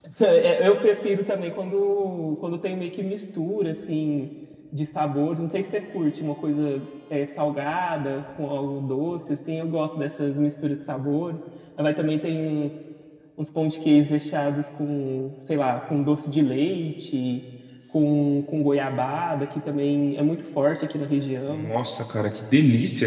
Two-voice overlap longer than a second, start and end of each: none

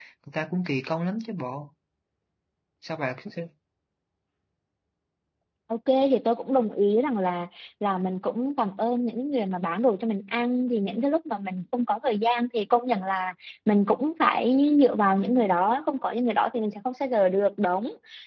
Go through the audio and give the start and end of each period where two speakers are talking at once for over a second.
none

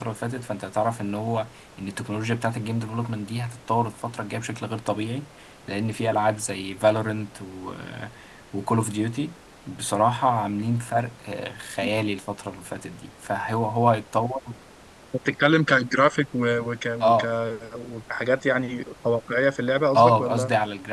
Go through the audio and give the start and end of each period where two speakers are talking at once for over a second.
none

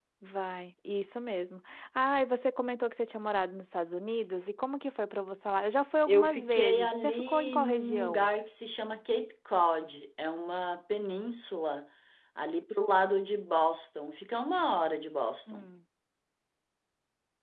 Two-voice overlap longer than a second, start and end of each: 6.1-8.3

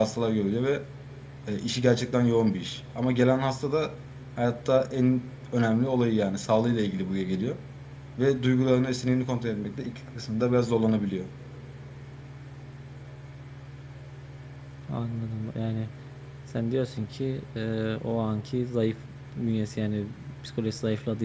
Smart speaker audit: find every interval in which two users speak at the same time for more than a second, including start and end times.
none

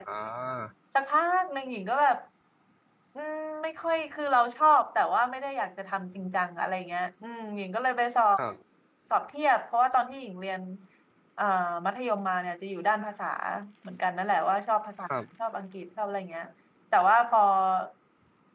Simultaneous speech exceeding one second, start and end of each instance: none

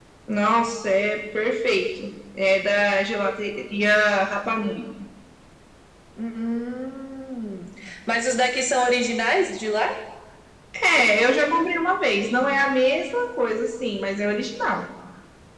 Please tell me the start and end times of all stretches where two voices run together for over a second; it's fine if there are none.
none

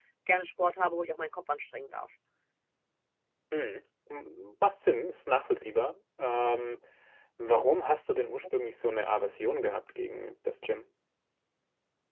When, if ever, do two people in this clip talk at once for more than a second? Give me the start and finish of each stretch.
none

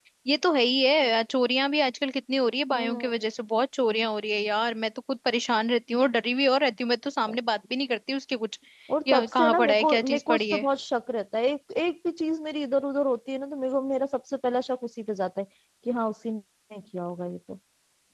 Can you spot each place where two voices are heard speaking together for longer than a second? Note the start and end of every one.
9.1-10.6

